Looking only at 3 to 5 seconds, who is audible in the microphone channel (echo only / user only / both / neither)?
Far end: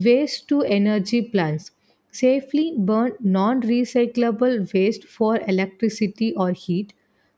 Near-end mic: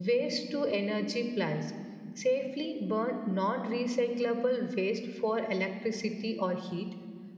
echo only